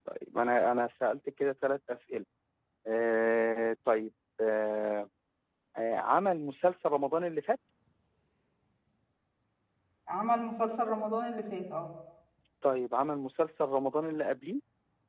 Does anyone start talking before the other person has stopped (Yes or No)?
No